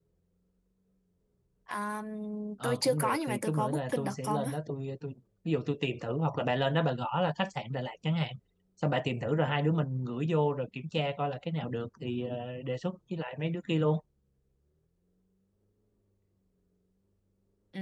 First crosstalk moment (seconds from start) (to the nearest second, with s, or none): 3 s